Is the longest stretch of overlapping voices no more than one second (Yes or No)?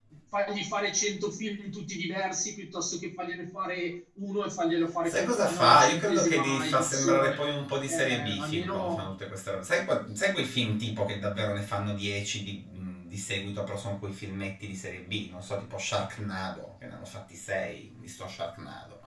No